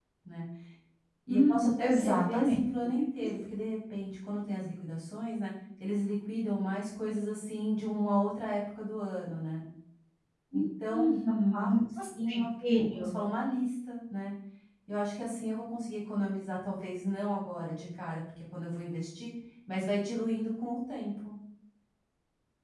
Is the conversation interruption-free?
No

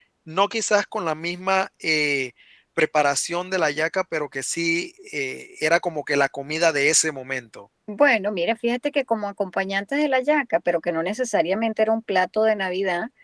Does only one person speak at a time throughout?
Yes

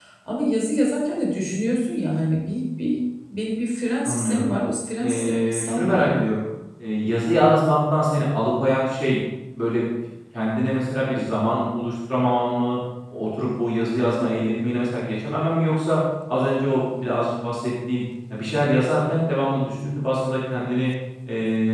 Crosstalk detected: Yes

